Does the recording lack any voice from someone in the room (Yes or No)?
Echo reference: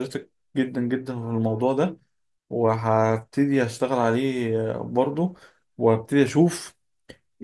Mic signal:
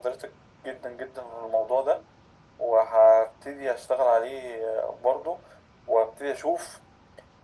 Yes